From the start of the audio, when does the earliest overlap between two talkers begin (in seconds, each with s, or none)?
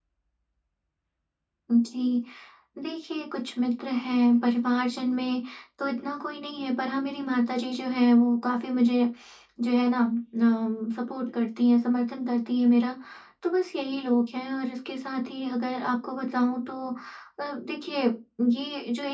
none